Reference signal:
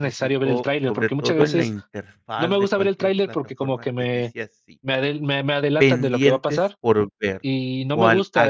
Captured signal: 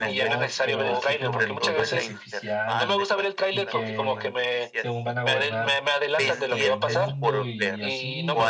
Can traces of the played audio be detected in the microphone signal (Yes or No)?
Yes